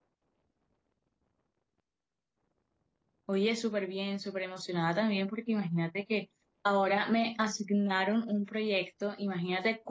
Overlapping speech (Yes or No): No